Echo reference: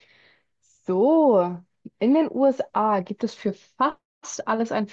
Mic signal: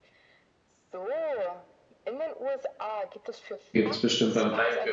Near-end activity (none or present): present